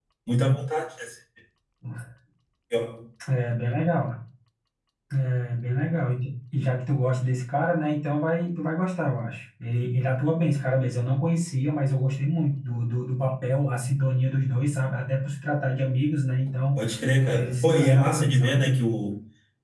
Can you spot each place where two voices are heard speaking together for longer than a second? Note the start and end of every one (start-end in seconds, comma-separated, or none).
17.3-18.7